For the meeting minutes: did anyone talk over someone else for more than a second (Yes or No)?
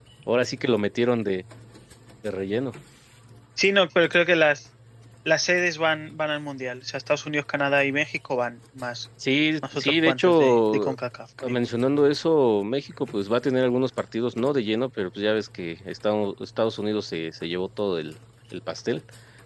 Yes